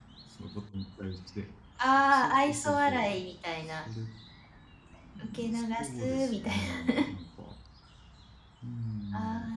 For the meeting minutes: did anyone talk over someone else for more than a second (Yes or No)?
Yes